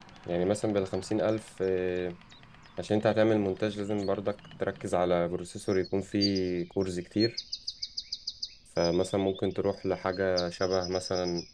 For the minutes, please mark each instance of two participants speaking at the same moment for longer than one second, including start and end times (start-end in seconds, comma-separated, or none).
none